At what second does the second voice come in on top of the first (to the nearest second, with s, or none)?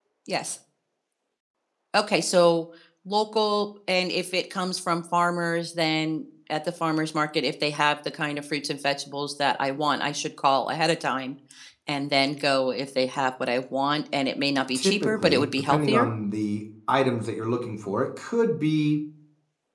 15 s